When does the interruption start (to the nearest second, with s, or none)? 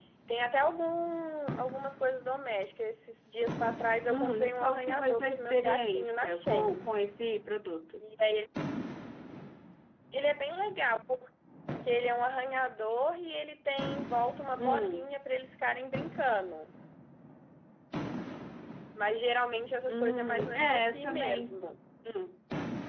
4 s